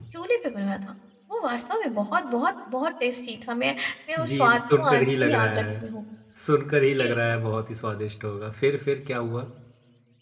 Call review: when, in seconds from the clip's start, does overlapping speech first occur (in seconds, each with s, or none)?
4.2 s